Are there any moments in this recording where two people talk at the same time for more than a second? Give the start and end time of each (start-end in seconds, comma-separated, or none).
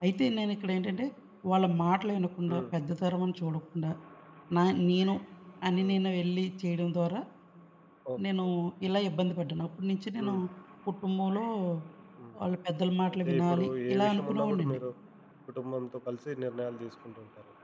13.2-14.8